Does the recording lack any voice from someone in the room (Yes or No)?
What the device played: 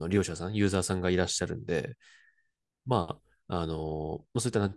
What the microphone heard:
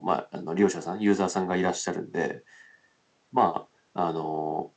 Yes